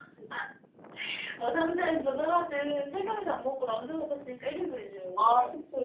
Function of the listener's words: taking over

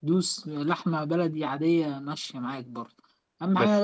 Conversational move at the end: listening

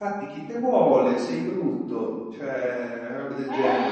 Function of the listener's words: listening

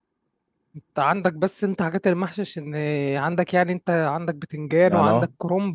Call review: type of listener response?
taking over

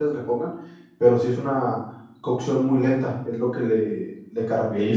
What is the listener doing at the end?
taking over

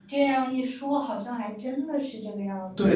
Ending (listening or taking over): taking over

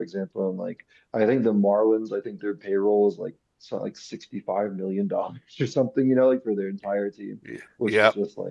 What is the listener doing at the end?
listening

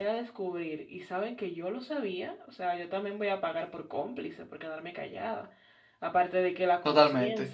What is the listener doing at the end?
listening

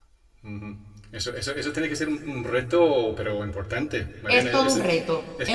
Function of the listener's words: taking over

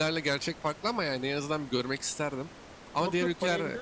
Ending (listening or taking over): taking over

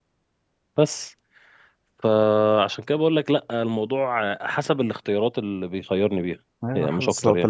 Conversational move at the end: taking over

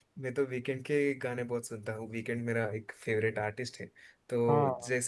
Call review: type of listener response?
listening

